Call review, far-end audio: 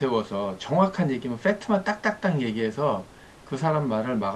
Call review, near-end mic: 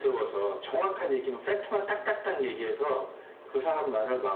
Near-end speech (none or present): none